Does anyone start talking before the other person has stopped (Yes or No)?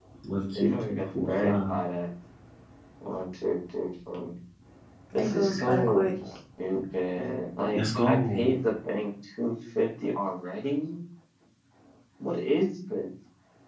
Yes